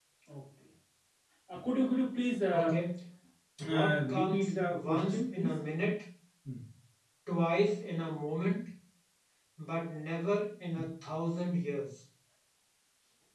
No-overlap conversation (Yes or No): No